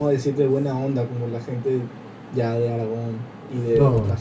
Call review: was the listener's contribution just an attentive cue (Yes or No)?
No